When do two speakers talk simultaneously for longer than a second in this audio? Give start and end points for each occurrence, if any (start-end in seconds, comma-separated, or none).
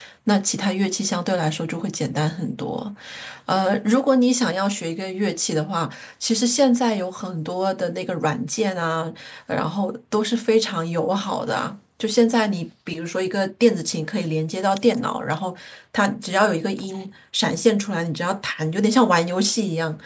none